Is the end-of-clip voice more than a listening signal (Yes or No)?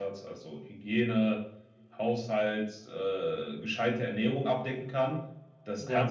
No